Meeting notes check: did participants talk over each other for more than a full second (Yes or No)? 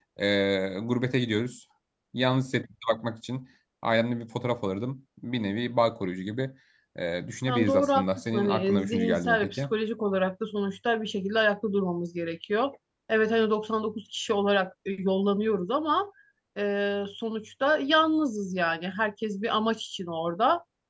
Yes